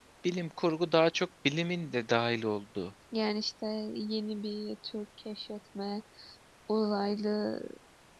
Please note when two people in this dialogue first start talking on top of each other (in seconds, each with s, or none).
none